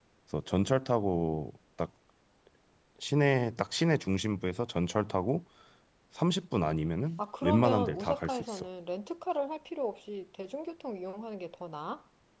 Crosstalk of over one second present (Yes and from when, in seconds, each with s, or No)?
Yes, from 7.2 s